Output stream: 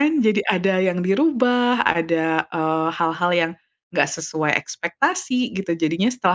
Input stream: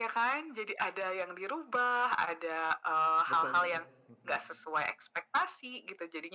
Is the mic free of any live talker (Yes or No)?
No